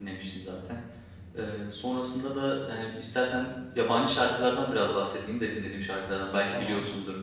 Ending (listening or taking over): listening